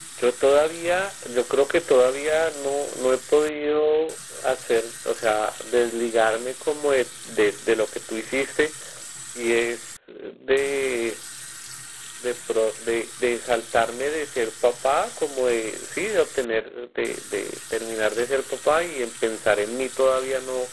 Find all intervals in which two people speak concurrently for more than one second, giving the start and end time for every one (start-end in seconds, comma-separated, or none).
none